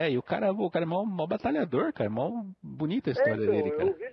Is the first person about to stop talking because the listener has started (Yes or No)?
Yes